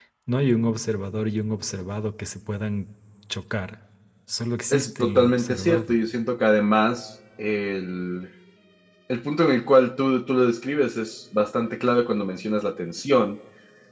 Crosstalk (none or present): present